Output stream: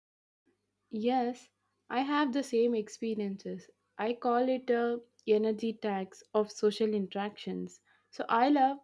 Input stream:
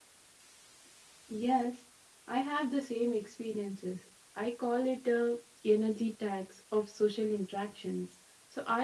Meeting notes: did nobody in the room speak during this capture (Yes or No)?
Yes